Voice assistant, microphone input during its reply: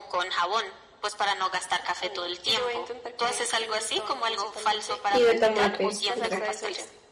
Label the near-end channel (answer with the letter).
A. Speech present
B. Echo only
A